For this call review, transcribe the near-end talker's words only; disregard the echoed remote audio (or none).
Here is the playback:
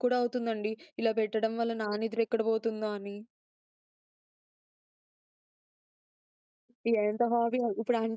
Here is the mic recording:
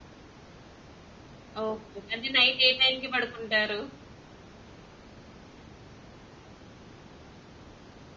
ఓకే. ఓకే. అంటే నైట్ ఏ టైంకి పడుకుంటారు?